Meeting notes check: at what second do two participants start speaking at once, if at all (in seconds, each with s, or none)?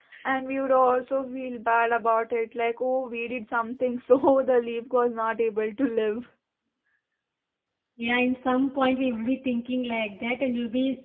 none